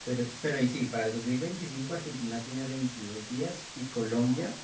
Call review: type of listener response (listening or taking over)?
listening